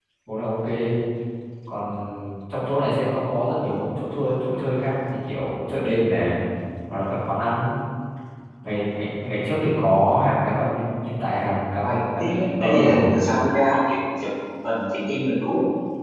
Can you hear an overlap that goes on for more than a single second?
Yes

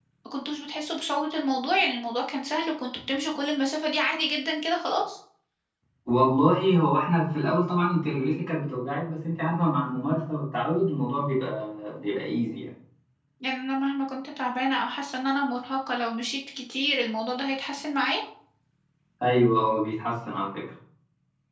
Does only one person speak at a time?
Yes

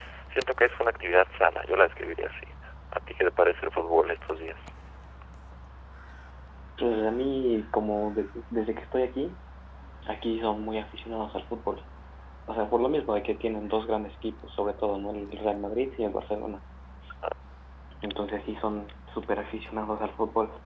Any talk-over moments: No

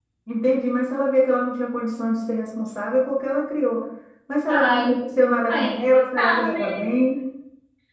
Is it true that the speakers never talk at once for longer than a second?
No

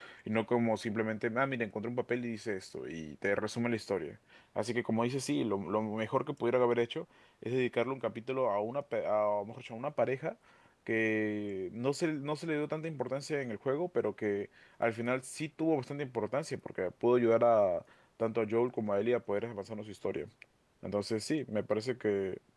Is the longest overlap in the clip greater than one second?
No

